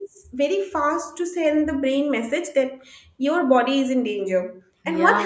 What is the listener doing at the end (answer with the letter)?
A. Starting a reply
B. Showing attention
B